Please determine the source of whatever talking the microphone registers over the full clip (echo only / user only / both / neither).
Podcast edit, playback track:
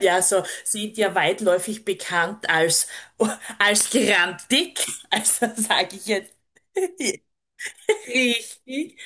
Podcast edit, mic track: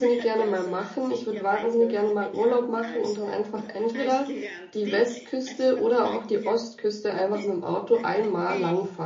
both